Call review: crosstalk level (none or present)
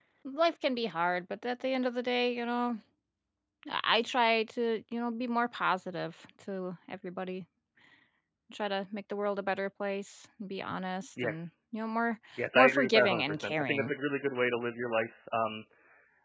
present